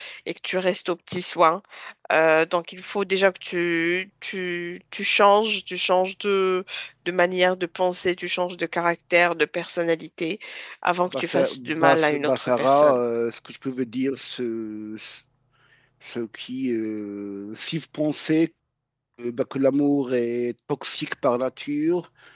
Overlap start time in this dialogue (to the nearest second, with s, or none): 11 s